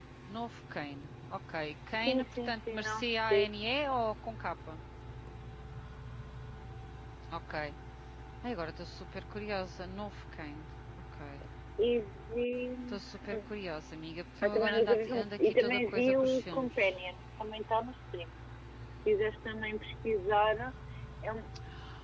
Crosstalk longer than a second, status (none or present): present